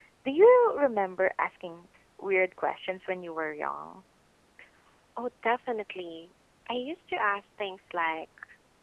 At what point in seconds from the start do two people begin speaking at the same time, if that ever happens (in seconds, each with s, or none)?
none